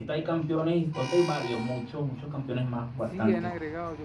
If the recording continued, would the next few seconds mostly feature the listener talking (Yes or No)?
Yes